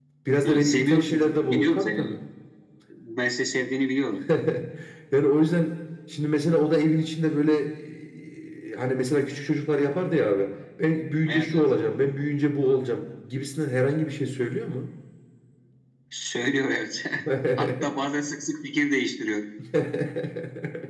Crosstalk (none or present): present